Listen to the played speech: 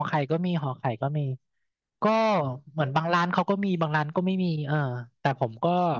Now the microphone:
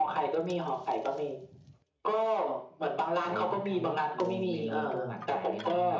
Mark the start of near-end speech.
3.2 s

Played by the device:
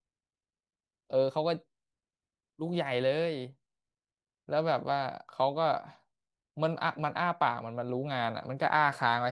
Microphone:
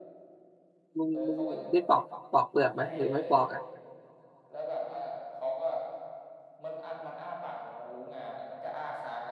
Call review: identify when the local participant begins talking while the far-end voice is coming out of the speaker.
1.0 s

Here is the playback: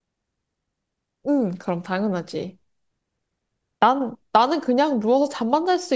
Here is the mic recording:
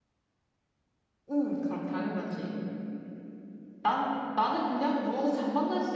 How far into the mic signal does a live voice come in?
none

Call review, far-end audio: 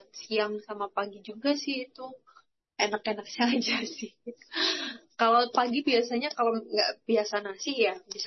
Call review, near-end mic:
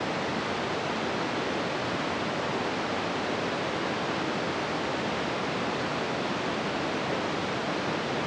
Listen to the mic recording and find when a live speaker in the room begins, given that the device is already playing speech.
none

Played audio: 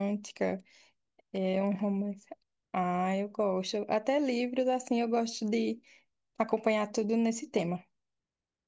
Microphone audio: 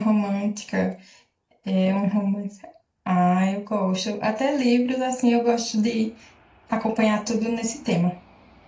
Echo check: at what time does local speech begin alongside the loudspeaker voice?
none

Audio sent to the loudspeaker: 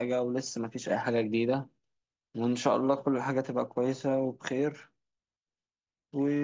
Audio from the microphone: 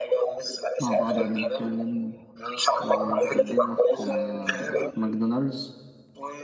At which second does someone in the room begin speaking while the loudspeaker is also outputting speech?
0.8 s

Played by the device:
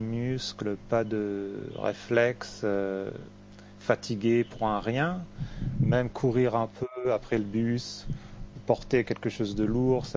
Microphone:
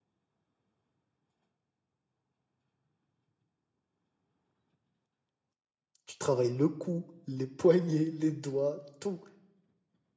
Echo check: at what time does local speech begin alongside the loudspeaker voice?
6.1 s

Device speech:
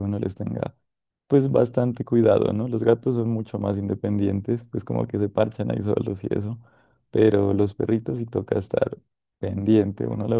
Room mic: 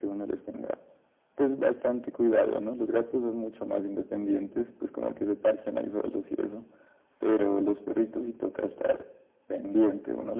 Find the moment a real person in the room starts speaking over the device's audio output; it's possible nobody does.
none

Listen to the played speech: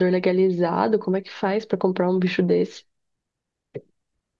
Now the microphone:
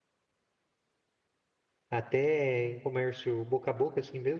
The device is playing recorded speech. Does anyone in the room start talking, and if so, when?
1.9 s

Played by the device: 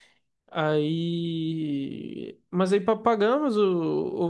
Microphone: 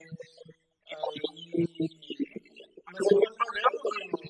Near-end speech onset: none

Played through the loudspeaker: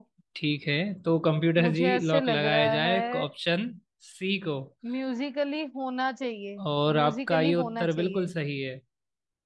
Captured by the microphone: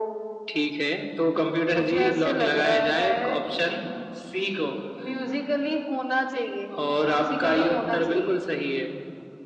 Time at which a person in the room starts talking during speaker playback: none

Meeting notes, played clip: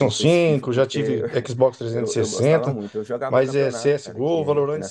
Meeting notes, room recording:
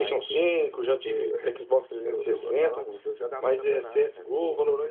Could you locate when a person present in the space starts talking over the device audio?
none

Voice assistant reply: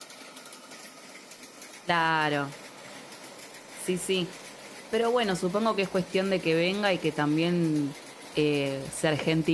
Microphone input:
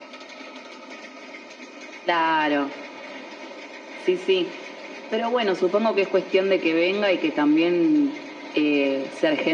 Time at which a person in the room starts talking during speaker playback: none

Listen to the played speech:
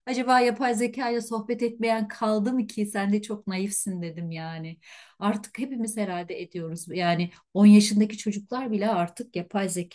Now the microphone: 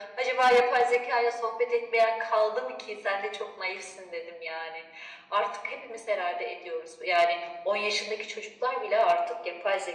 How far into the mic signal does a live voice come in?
none

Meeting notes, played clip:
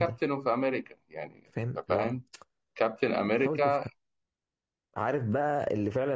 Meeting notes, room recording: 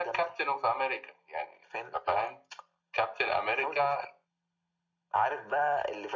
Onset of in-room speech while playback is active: none

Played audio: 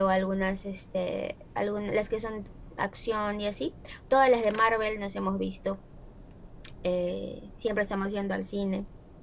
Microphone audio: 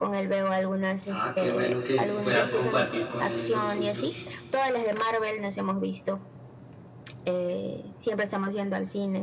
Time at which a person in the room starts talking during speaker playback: 1.1 s

